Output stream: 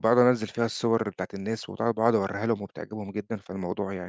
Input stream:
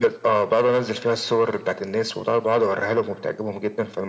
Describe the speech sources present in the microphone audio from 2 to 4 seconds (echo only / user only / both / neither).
echo only